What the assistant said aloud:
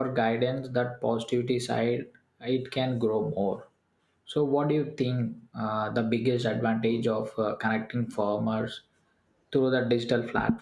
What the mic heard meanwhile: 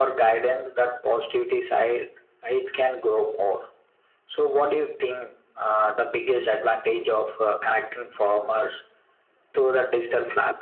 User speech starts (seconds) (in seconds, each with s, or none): none